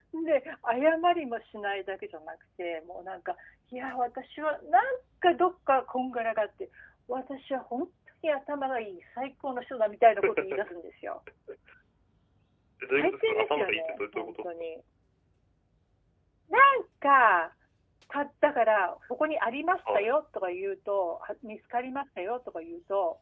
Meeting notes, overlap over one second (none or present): present